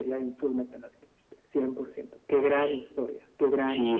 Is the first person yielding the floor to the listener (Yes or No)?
Yes